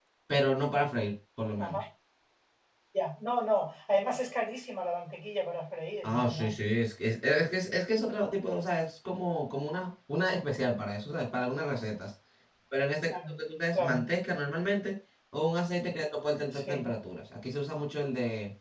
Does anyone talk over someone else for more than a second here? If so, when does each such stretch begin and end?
none

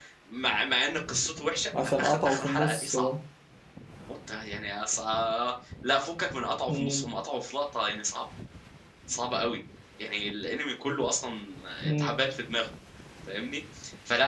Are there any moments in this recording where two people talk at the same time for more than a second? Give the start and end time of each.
1.8-3.1

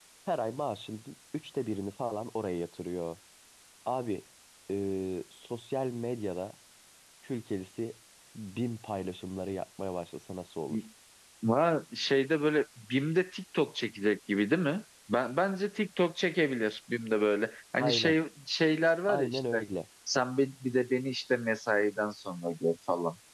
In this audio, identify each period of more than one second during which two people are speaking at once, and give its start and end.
none

